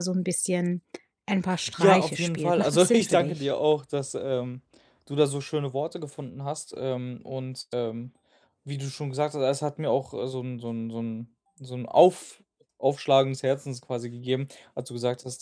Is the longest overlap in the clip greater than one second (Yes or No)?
Yes